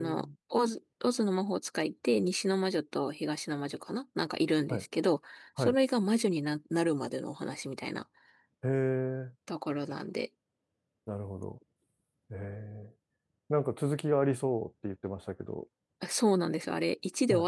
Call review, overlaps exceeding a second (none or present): none